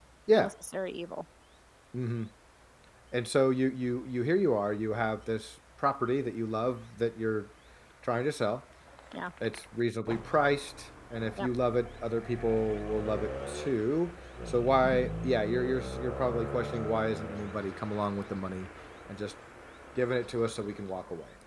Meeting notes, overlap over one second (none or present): none